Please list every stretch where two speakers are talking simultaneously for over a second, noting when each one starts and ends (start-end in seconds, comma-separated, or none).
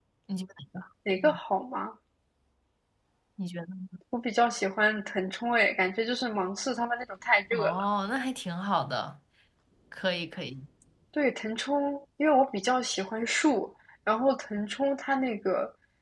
none